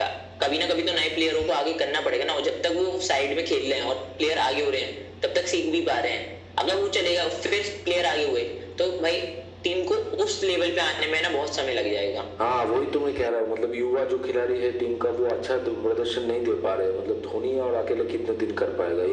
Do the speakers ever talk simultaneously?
No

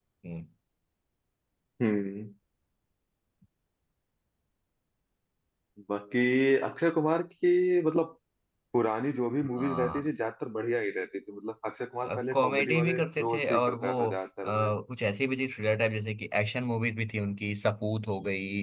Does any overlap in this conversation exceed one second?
Yes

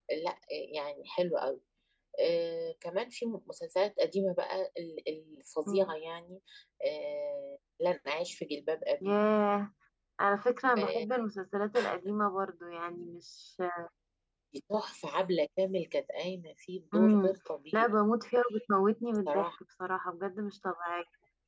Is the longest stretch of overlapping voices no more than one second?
Yes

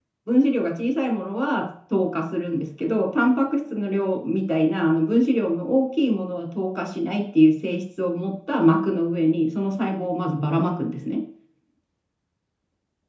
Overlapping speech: No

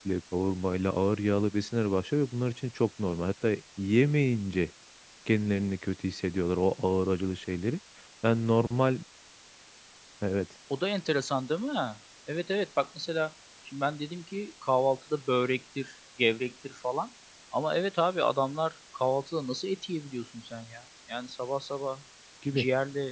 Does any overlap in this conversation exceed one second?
No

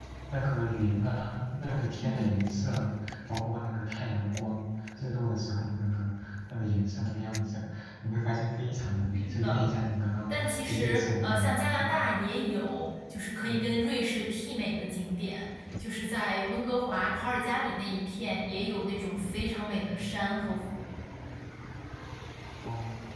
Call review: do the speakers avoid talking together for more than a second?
No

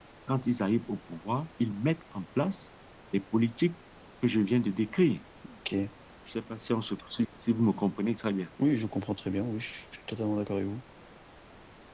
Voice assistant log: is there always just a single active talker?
Yes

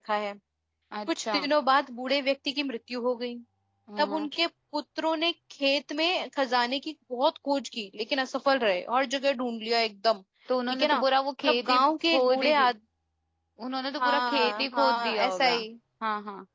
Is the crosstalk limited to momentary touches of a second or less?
No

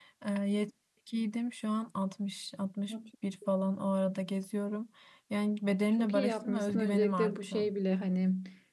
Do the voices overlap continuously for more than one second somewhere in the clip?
Yes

